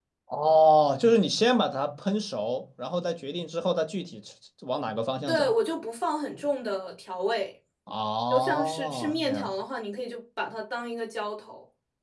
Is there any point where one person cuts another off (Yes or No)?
Yes